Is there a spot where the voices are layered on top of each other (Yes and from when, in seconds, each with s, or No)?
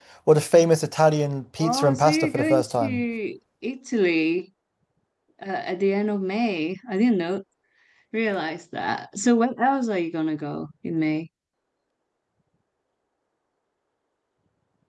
Yes, from 1.6 s